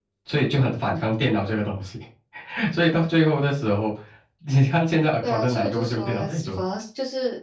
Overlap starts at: 5 s

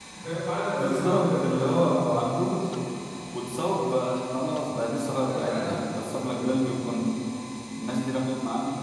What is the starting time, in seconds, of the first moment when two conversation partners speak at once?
1 s

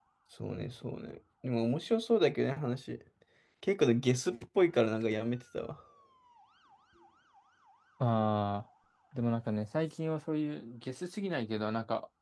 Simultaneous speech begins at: none

